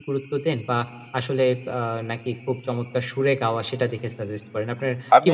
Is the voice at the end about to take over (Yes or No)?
Yes